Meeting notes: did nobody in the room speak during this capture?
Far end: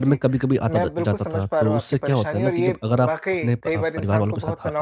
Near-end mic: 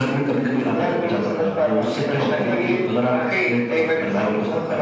Yes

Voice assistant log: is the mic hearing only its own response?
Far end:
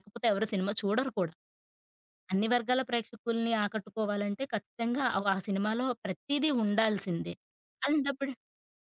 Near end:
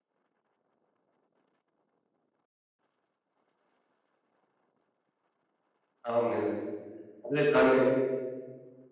No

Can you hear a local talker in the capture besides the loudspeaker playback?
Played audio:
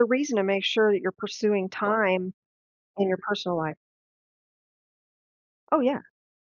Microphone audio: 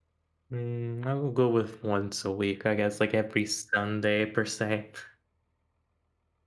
Yes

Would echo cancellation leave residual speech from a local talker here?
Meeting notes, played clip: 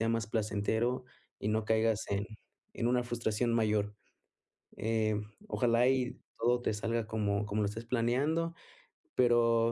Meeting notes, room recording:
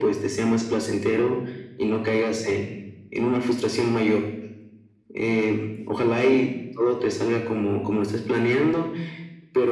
No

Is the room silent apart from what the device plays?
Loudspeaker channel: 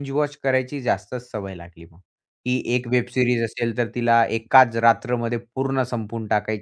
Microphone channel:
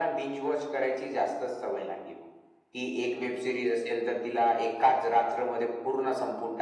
Yes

